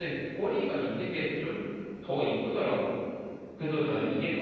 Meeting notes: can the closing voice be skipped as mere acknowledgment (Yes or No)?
Yes